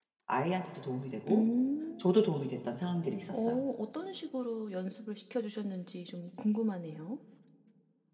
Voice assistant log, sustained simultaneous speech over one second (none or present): none